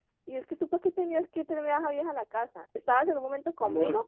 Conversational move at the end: listening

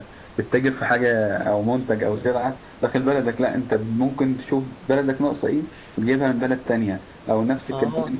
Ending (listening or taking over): listening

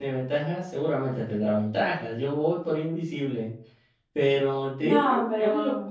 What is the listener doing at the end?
listening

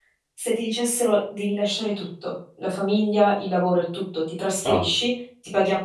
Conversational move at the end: listening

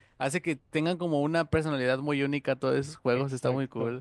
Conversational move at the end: taking over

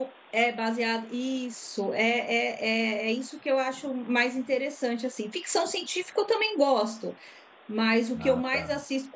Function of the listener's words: listening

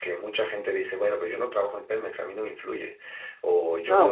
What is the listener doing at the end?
taking over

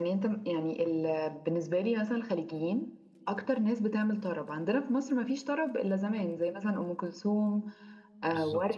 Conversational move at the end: listening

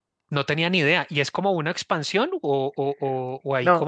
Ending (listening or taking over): taking over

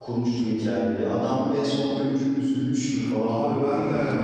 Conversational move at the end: taking over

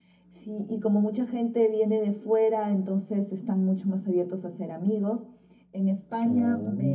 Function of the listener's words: listening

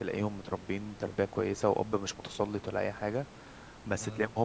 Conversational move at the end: listening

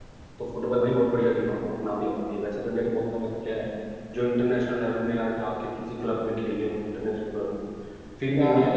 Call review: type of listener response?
listening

